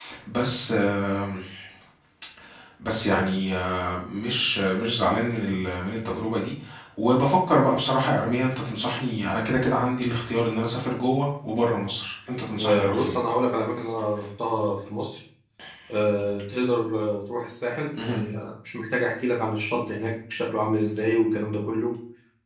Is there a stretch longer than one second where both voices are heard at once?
No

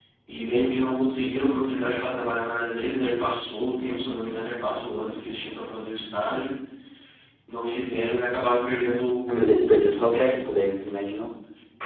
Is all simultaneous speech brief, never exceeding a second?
No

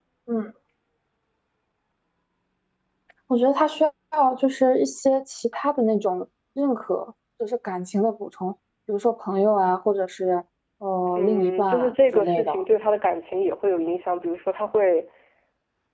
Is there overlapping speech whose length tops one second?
Yes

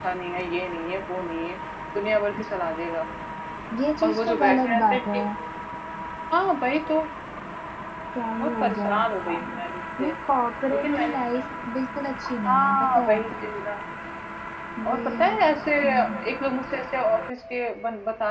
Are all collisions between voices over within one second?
No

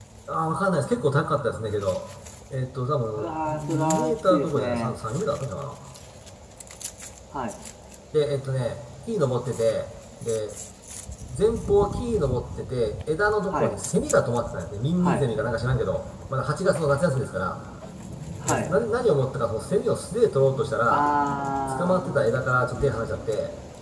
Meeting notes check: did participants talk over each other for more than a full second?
Yes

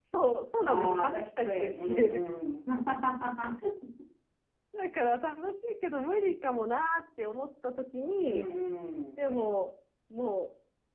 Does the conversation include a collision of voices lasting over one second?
Yes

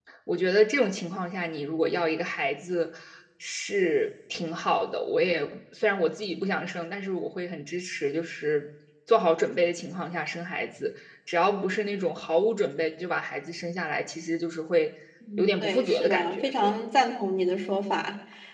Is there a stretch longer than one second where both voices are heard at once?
Yes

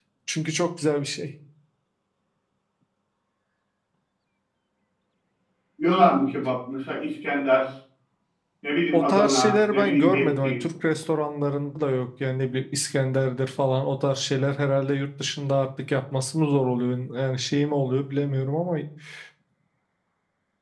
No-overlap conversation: No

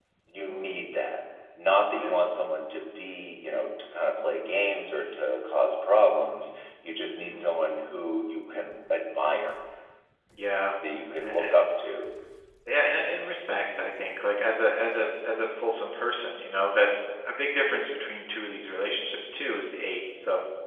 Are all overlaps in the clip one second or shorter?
Yes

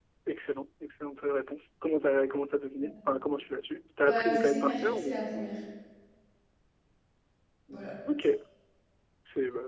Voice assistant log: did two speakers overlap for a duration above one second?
Yes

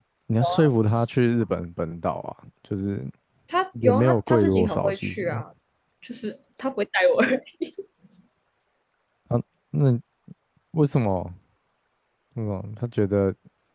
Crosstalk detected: Yes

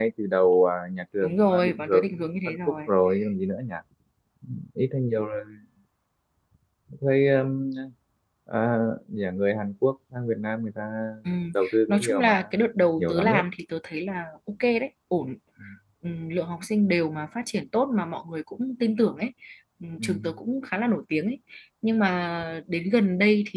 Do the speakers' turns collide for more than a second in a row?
Yes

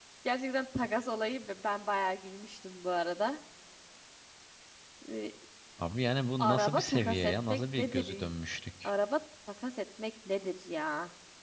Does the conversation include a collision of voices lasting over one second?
Yes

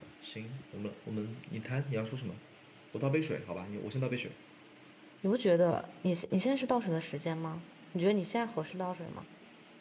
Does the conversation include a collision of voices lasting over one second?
No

